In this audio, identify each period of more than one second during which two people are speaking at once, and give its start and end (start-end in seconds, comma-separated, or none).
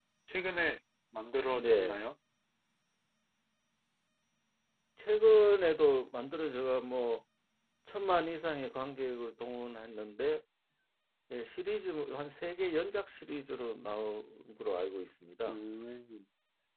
none